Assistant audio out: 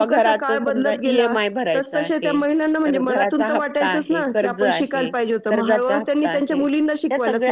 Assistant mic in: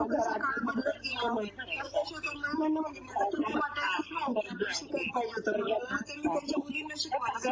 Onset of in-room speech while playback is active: none

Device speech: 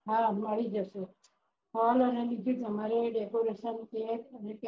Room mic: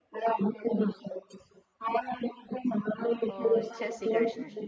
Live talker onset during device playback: 3.3 s

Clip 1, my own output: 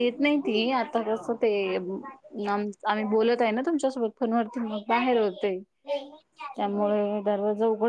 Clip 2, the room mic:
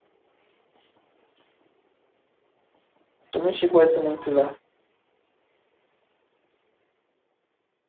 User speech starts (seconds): 3.3 s

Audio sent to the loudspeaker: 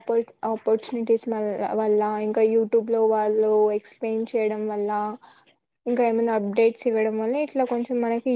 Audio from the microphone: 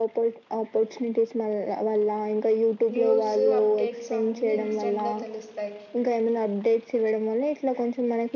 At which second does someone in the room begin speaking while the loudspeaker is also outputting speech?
2.9 s

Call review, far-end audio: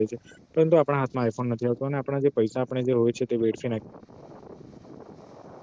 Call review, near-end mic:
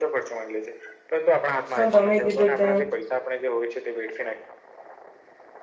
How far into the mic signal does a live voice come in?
1.7 s

